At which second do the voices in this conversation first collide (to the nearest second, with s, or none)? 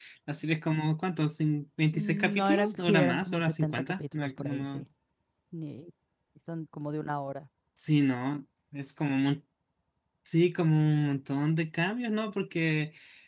2 s